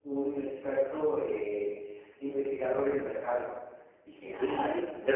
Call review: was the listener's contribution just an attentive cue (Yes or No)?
No